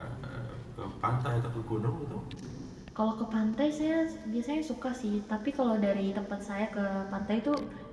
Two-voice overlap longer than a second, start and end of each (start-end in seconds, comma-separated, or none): none